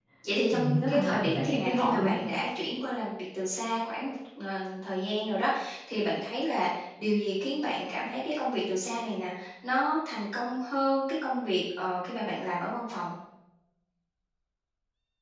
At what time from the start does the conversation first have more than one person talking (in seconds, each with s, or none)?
0.5 s